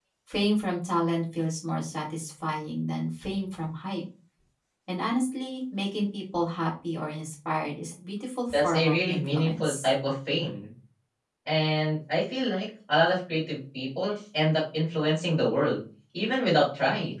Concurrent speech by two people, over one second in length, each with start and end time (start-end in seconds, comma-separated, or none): 8.5-9.9